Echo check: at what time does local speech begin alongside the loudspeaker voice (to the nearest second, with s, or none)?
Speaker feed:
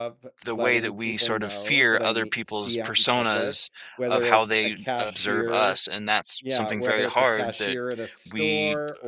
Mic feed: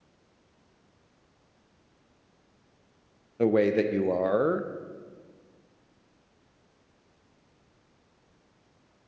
3 s